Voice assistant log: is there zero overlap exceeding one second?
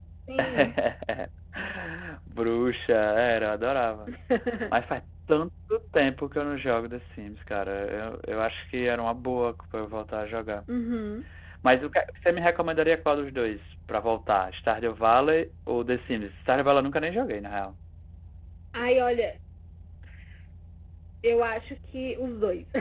Yes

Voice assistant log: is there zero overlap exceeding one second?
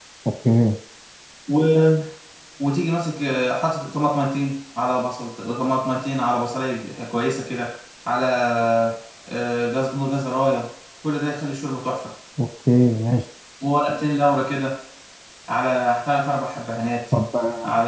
Yes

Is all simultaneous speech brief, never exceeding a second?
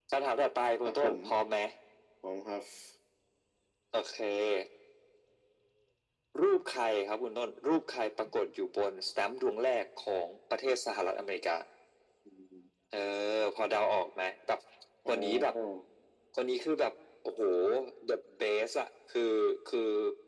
Yes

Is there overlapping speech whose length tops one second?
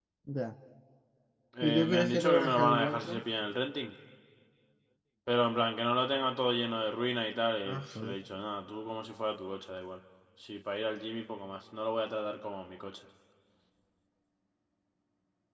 Yes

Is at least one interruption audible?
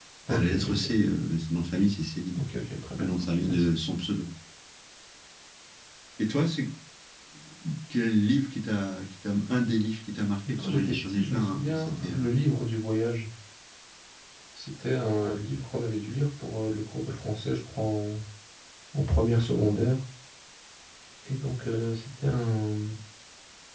Yes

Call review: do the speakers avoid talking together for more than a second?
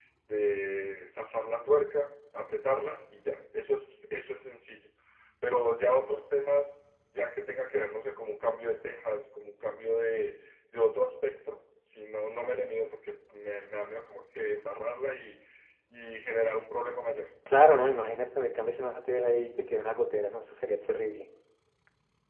Yes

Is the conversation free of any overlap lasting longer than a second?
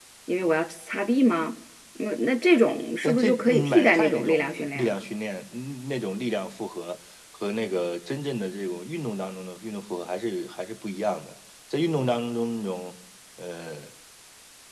No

